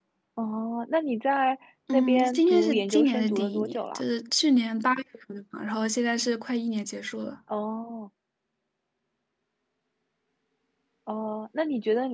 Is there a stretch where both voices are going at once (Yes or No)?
Yes